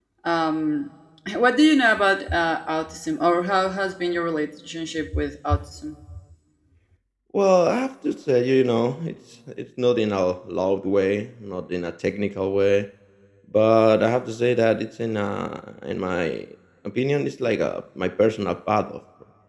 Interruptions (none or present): none